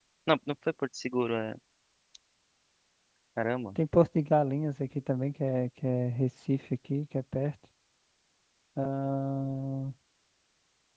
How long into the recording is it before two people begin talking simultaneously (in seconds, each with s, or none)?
none